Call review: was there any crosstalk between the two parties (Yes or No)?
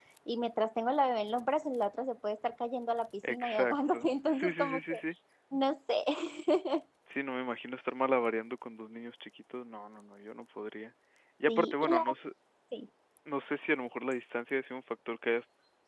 Yes